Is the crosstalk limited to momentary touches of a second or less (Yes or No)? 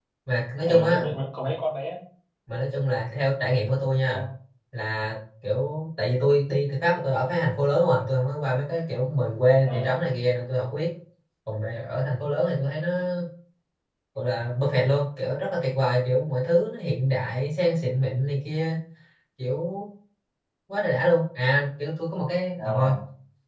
Yes